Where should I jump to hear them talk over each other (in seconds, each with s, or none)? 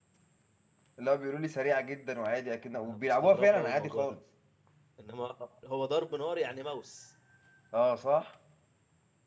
2.8 s